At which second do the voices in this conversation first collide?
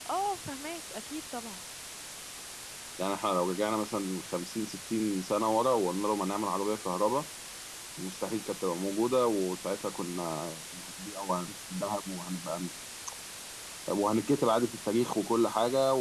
none

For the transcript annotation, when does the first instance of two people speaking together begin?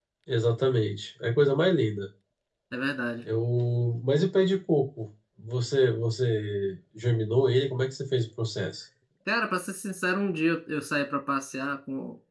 none

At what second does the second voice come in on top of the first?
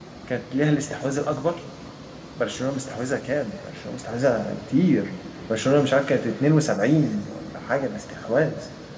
none

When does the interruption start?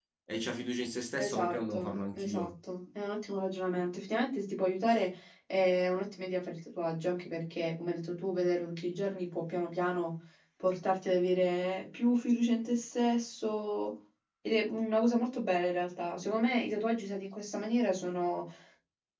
1.2 s

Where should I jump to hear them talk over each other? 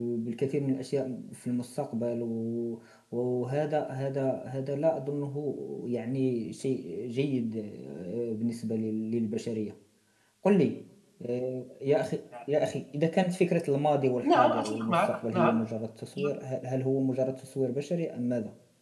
14.2 s

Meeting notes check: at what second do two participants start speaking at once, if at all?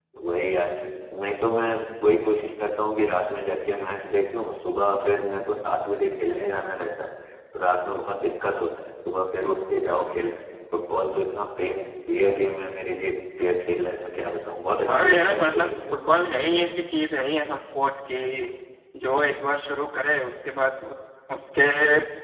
14.9 s

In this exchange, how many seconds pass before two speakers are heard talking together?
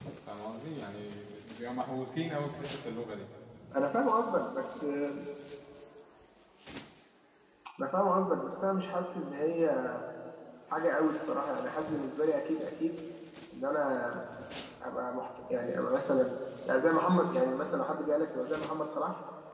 none

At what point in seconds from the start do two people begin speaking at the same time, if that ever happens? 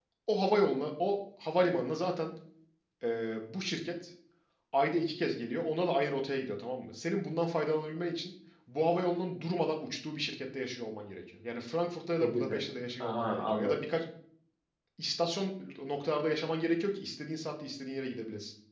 12.2 s

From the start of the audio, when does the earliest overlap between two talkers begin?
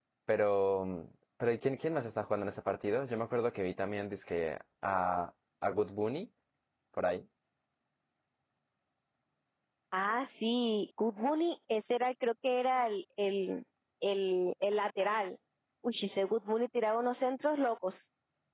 none

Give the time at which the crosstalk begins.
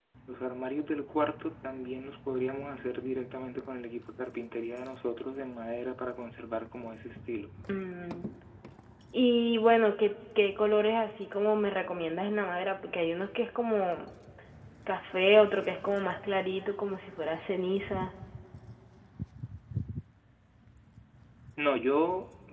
none

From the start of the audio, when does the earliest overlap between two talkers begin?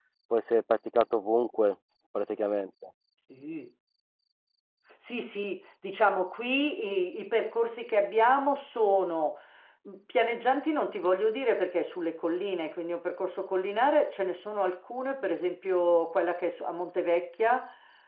none

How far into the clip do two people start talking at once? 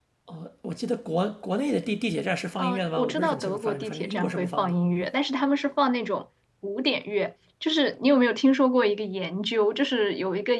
2.6 s

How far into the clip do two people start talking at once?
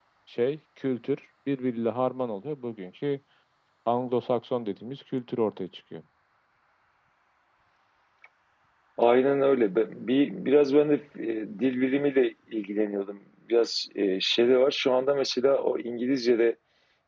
none

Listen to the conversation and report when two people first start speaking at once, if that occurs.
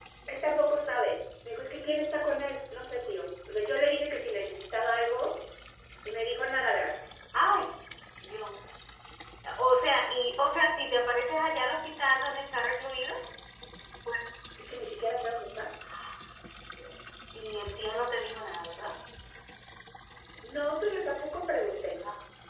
none

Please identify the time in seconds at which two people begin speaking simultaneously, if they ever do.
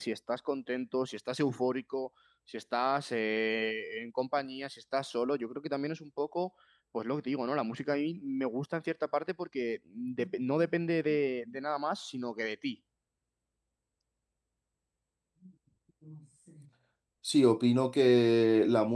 none

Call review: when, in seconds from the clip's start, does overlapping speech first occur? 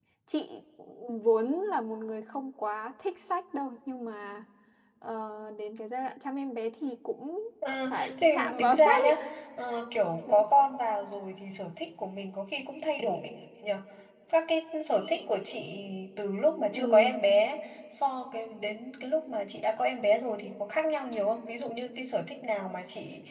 7.9 s

